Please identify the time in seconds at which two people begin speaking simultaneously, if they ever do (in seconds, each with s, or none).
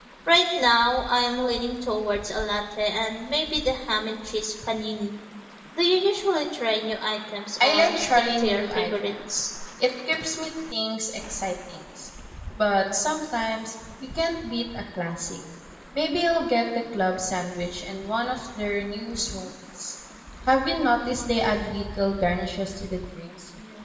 7.6 s